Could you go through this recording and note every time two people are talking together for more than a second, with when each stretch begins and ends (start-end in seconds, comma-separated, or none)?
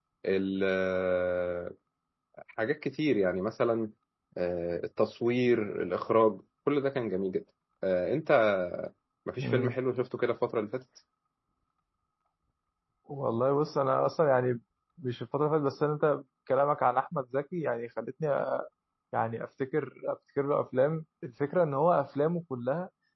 none